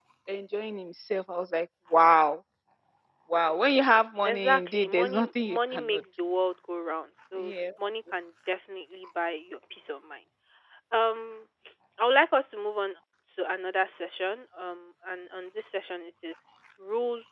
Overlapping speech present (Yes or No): Yes